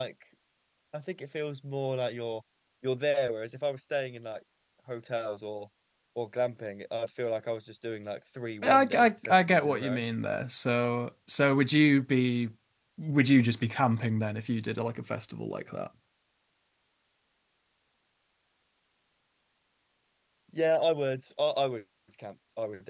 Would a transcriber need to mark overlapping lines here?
Yes, from 8.6 s

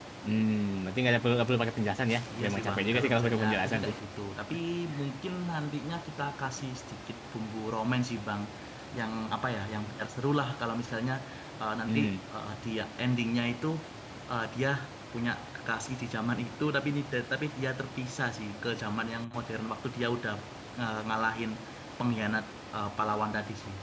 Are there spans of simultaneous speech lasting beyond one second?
Yes, from 2.4 s

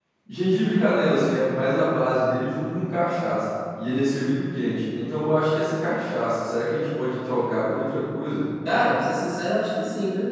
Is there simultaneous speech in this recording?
No

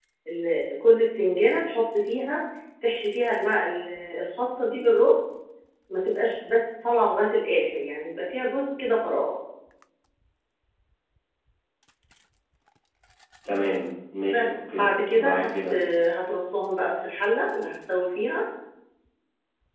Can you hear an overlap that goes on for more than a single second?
Yes, from 14.3 s

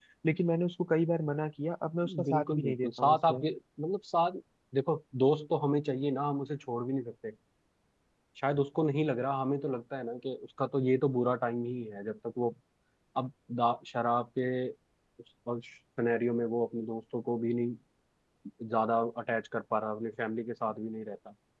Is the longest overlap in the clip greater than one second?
Yes, from 2.0 s

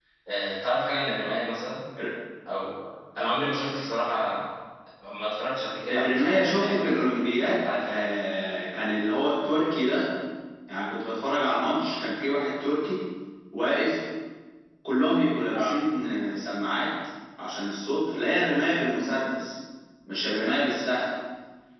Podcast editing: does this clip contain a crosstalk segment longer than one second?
Yes, from 5.9 s

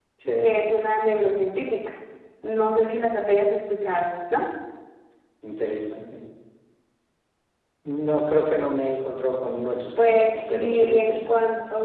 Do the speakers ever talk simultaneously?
Yes, from 10.0 s

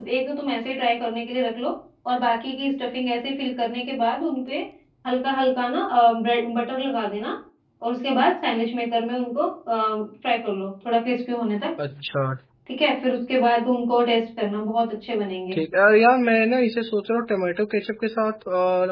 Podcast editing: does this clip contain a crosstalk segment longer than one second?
No

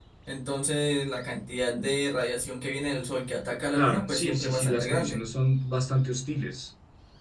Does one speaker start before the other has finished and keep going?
Yes, from 3.7 s

